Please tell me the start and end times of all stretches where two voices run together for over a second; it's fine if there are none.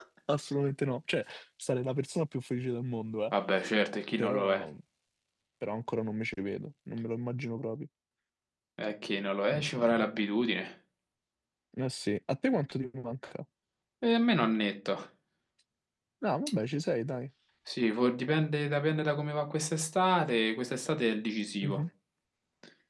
none

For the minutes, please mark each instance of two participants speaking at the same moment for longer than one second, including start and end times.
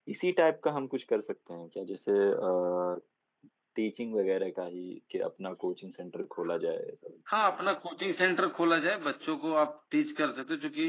none

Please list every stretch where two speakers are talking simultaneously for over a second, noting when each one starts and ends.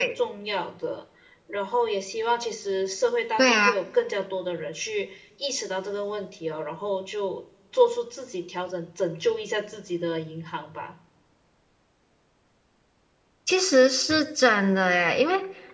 none

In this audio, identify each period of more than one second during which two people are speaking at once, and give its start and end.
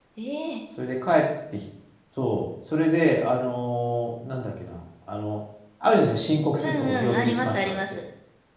6.6-8.0

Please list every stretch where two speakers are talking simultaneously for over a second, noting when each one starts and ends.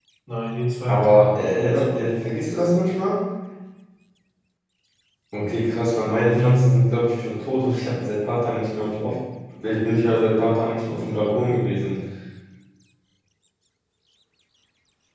0.9-2.6

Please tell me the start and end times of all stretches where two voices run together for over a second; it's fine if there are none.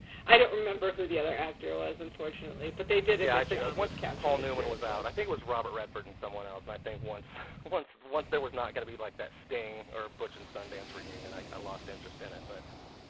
3.2-5.0

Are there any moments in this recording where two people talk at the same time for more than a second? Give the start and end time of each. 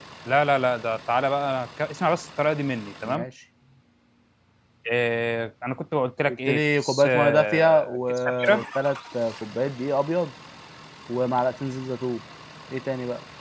6.3-8.6

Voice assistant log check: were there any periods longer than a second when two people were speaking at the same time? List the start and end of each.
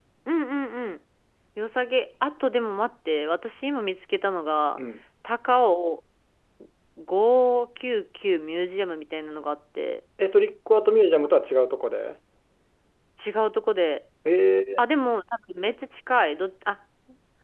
none

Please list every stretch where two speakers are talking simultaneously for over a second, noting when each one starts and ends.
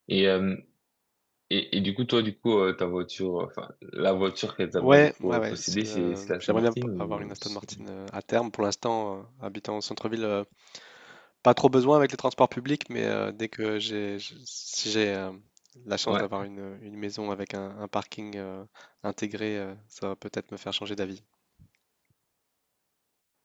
4.8-7.6

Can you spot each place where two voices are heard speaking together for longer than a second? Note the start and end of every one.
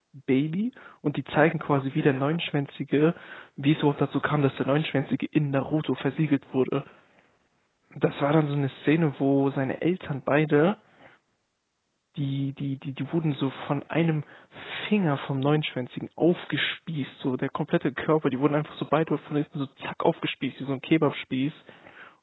none

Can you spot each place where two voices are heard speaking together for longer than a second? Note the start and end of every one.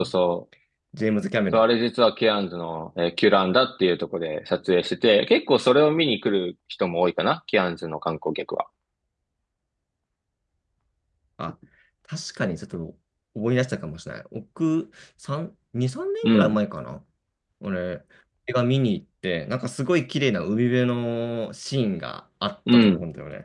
none

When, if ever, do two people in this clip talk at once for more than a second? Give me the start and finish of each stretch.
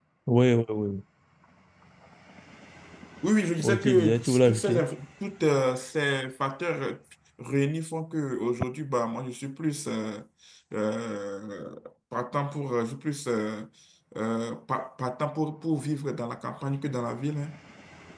3.6-4.8

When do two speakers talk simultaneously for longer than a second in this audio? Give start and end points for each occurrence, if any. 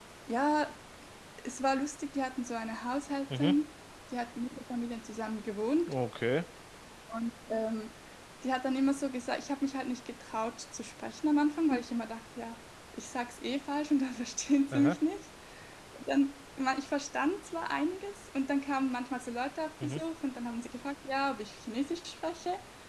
none

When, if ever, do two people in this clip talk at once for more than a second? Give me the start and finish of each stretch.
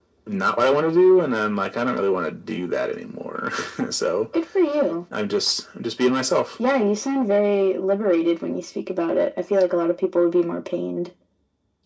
none

